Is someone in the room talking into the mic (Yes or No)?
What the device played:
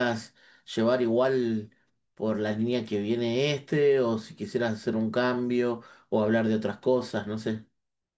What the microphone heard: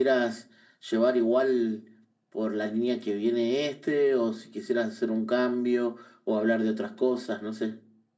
No